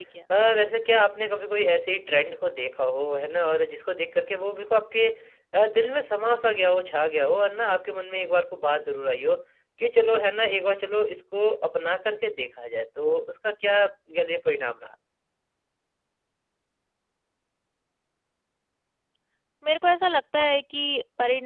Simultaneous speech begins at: none

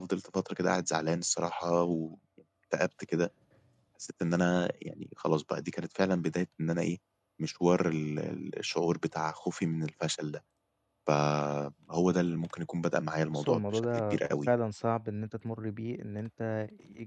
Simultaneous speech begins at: 13.3 s

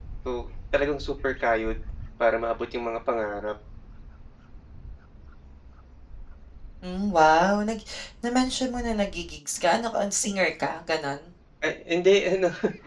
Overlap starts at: none

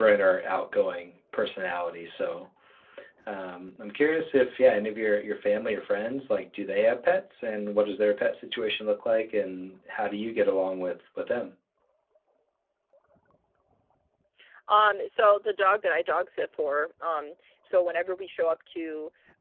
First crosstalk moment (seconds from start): none

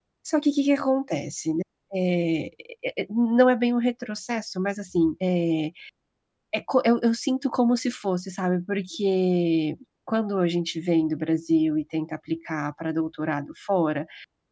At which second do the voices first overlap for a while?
none

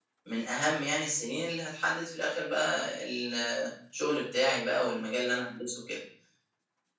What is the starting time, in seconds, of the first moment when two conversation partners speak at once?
none

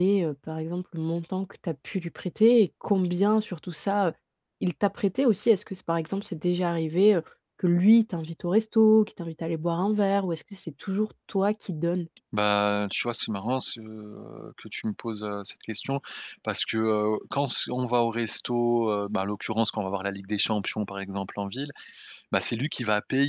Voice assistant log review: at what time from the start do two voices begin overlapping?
none

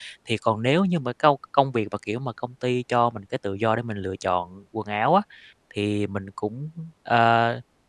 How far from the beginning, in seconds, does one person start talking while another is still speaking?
none

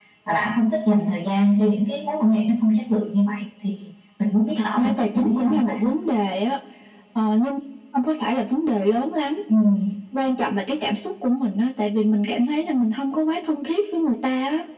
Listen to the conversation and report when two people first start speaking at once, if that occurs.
4.6 s

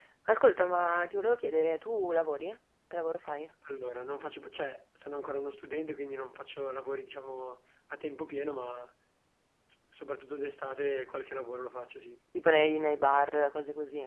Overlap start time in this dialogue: none

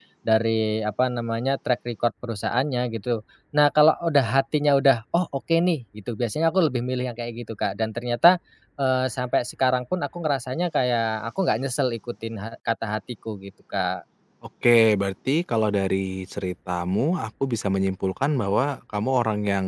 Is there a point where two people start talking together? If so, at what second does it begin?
none

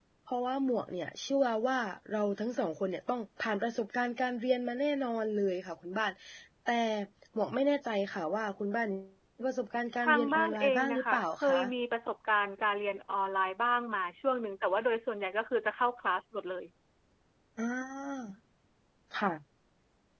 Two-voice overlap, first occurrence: 10.0 s

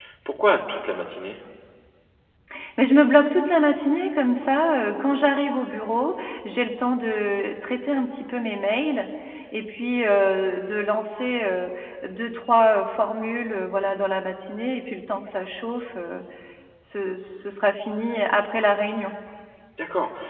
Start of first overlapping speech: none

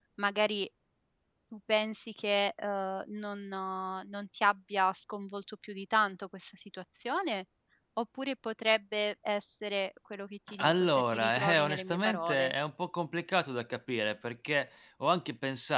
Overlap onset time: 10.5 s

